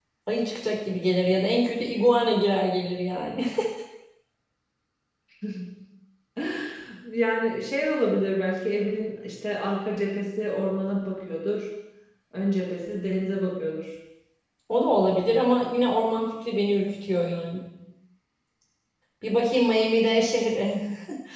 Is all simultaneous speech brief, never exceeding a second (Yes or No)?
Yes